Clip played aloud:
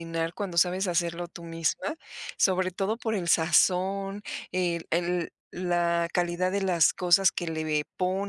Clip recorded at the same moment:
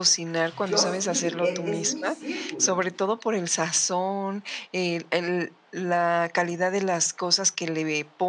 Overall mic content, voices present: both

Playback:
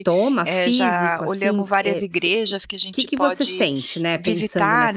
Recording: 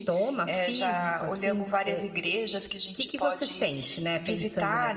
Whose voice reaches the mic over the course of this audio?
echo only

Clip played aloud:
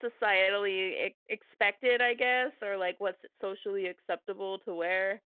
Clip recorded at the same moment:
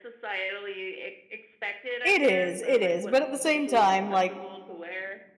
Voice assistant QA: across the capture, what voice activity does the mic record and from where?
both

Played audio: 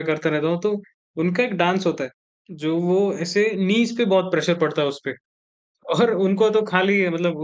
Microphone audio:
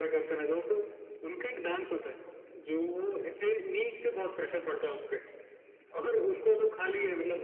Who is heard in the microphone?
echo only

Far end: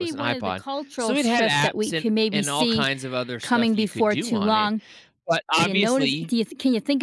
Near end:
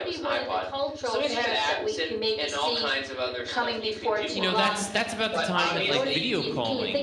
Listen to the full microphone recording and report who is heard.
both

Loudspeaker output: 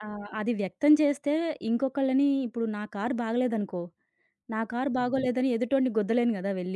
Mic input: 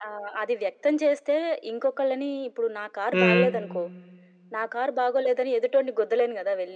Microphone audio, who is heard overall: both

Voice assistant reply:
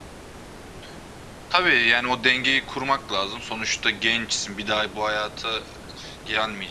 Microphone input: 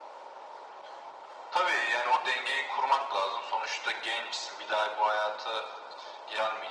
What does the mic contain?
echo only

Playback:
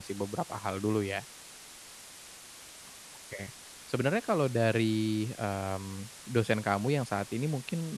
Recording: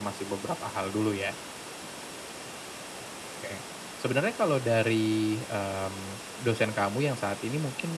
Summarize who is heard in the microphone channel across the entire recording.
echo only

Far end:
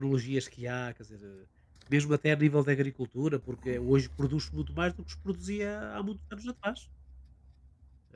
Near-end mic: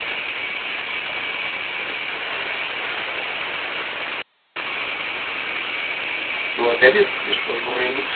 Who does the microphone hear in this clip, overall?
user only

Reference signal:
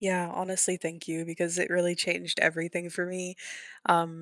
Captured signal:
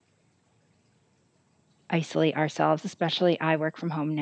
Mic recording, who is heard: user only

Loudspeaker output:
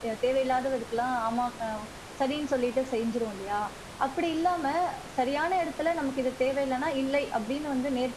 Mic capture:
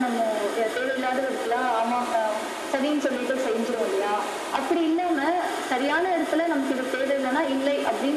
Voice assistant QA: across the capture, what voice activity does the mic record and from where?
echo only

